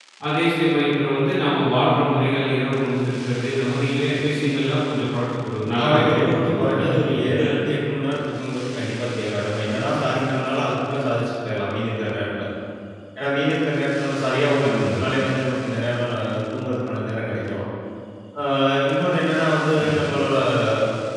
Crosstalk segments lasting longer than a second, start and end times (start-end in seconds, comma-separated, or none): 5.8-7.5